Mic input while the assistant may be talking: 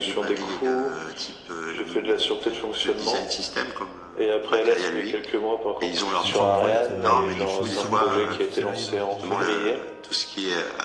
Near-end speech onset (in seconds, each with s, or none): 6.2 s